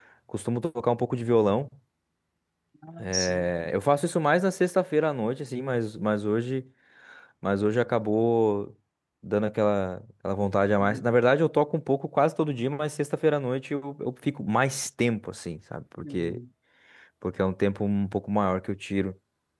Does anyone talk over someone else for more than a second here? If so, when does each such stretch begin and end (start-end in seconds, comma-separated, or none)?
none